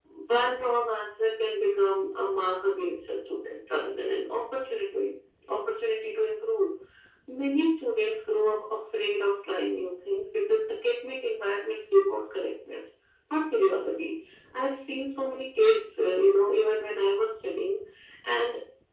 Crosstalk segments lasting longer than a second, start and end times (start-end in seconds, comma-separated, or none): none